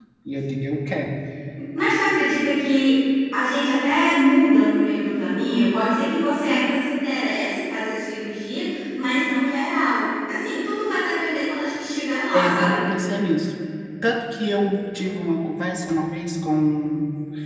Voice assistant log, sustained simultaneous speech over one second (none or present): none